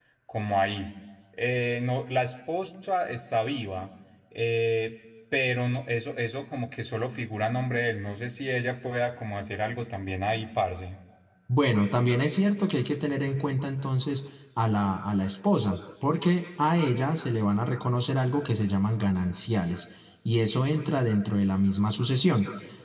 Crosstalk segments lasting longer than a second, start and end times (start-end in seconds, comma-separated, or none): none